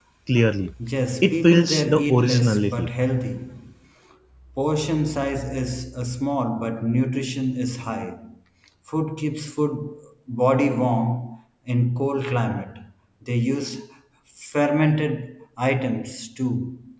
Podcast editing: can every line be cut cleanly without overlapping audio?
No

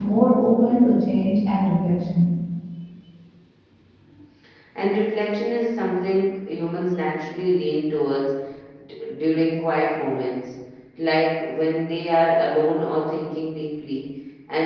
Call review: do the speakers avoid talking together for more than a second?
Yes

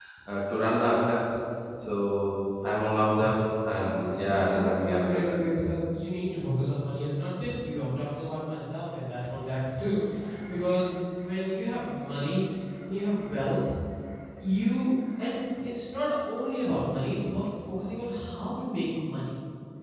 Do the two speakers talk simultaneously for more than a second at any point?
Yes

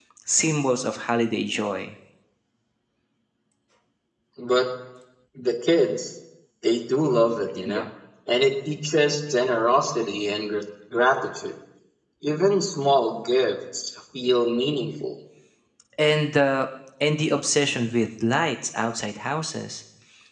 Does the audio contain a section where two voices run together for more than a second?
No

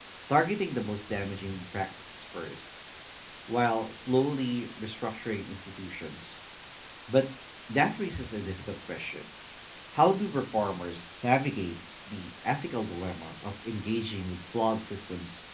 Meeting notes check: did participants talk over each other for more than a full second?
No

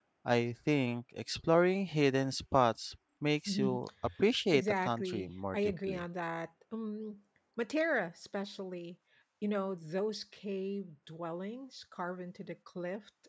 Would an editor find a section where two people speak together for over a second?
Yes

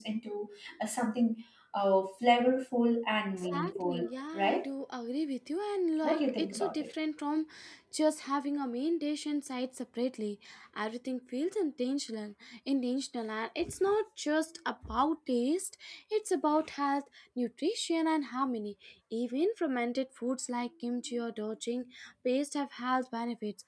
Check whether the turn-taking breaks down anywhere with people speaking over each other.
Yes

